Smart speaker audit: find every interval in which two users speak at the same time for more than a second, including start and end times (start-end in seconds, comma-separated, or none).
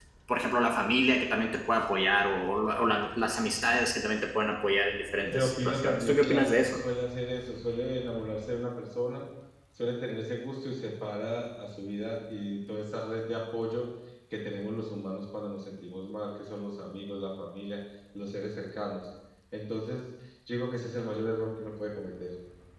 5.2-6.8